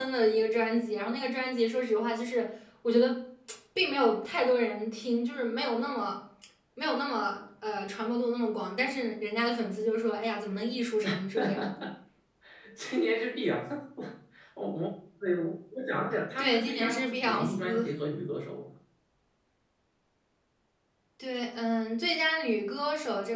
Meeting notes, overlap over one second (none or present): present